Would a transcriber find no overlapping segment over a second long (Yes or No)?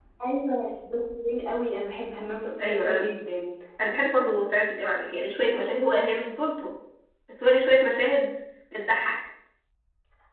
Yes